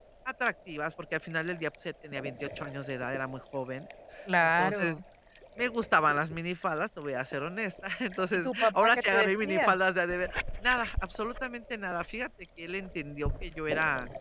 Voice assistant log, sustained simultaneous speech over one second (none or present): present